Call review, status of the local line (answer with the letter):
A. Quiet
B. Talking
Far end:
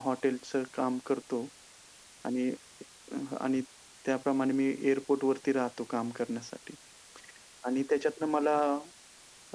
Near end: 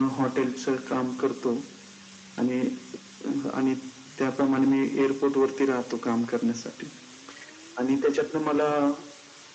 A